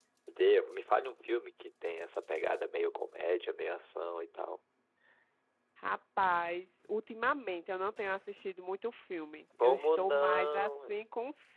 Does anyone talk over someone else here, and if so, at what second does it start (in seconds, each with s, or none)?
9.6 s